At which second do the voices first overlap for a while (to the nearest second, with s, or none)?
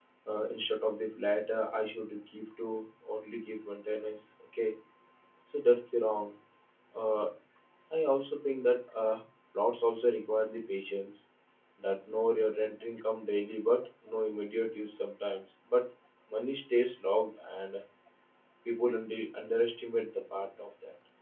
none